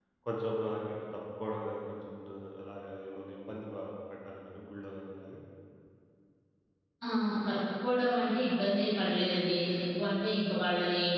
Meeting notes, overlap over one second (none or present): none